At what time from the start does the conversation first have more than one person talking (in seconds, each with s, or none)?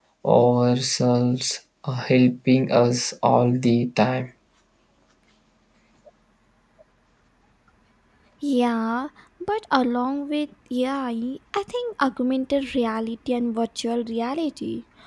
none